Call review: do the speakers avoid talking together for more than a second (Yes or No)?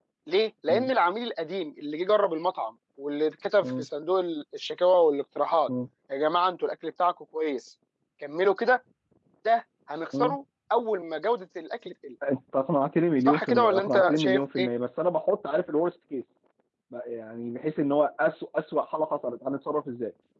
No